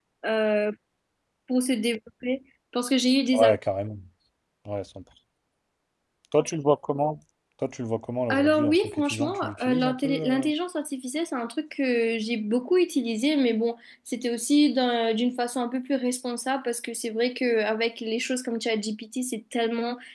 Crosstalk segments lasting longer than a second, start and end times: 8.3-10.5

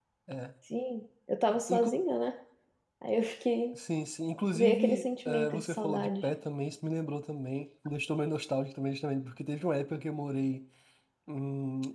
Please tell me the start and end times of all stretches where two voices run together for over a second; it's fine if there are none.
4.6-6.1

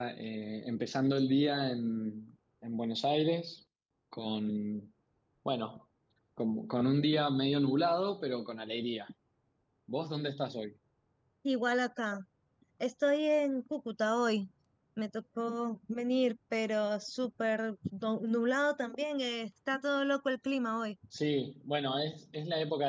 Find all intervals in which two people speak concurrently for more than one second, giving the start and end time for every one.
none

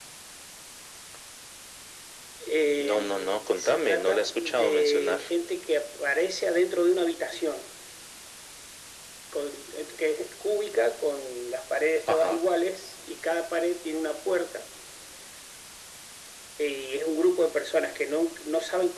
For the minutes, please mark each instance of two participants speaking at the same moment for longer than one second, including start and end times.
2.9-5.2

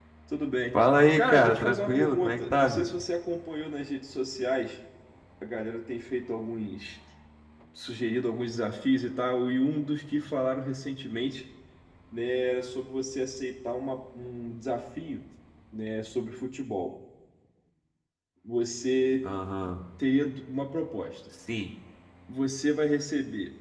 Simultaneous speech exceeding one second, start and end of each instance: 1.2-2.9

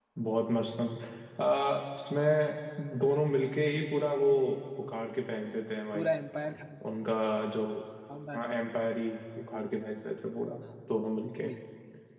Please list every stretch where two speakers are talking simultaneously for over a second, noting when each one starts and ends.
none

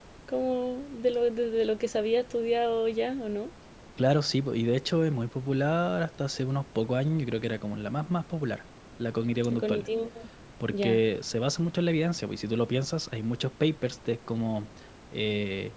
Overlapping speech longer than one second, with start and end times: none

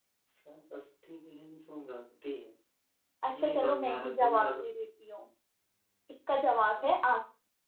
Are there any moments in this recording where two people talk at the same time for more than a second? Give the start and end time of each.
3.3-4.7

